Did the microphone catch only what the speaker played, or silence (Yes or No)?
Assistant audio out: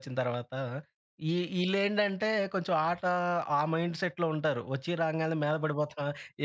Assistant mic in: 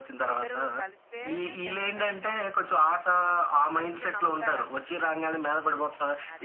No